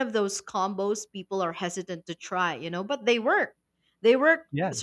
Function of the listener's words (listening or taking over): listening